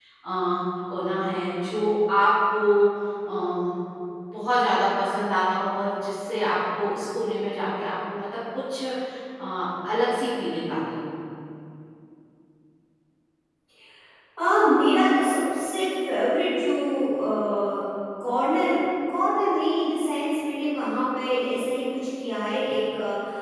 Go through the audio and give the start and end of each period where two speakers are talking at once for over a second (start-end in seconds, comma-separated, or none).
none